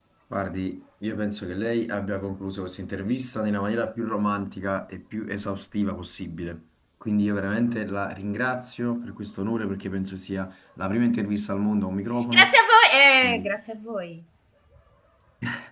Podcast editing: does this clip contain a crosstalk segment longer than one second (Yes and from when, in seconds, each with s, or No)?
No